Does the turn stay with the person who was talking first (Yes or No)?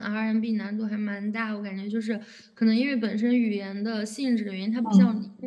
No